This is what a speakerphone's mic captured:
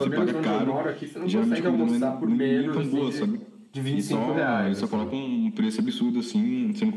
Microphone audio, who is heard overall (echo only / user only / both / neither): both